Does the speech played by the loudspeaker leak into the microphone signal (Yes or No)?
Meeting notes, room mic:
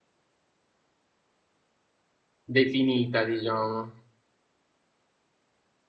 No